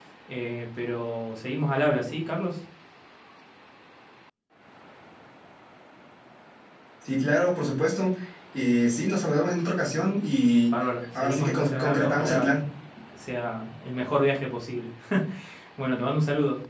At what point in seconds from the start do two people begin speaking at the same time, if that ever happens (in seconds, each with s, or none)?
11.2 s